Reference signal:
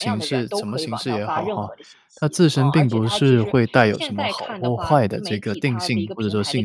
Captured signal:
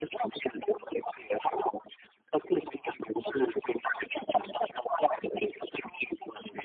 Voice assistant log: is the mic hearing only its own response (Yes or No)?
Yes